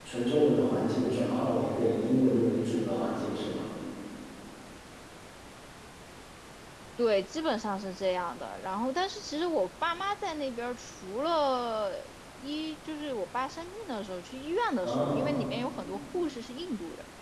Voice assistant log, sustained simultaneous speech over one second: none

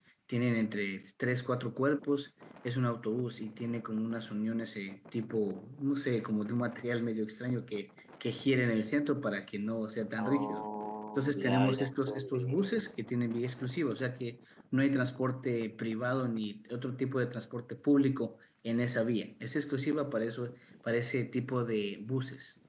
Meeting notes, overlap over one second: present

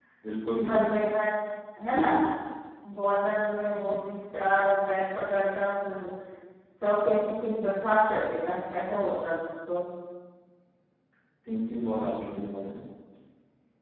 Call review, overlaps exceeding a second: none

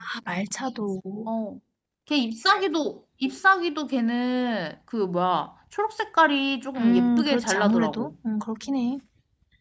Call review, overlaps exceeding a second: present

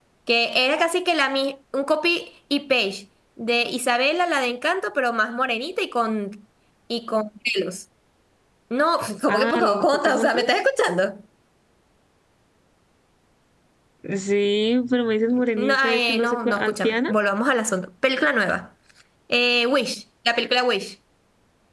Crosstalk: present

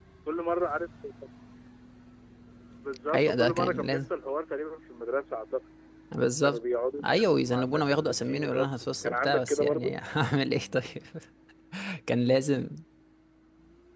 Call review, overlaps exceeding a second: present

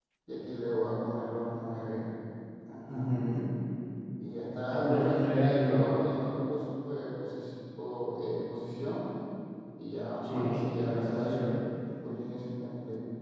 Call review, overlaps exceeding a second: present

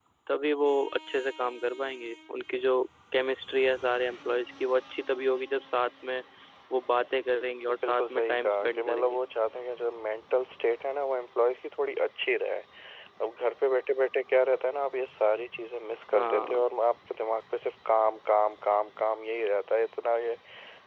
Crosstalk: present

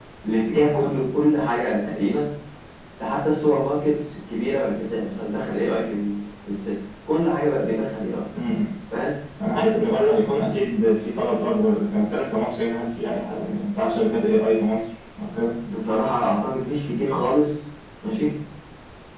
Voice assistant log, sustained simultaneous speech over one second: none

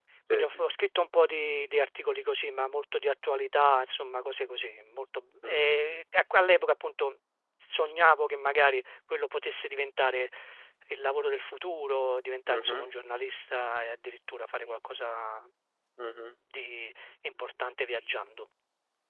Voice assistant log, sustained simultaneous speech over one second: none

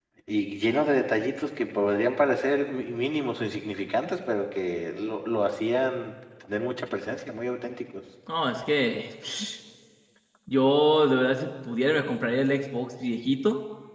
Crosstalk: none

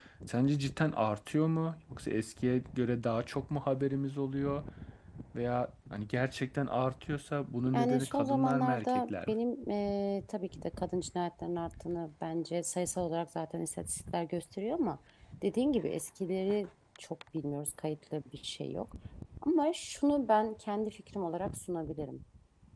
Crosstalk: present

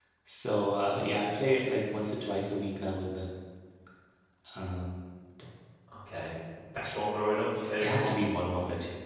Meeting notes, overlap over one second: none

